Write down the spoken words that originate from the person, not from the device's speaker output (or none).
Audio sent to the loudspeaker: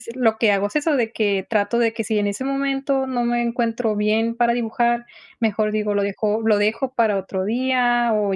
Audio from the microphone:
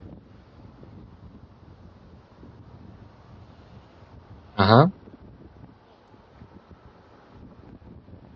Ajá.